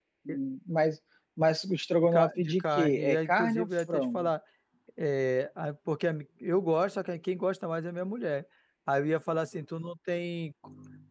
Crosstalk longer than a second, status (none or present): present